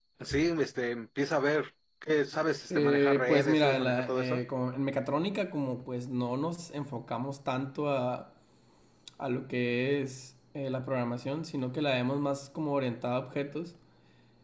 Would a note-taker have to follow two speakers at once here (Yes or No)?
Yes